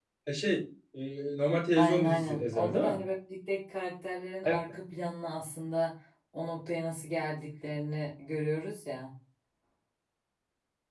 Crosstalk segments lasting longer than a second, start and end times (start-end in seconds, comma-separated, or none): 1.8-3.0